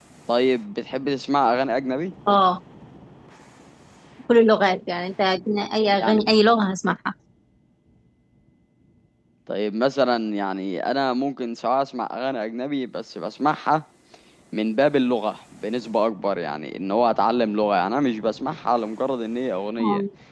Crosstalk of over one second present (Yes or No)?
No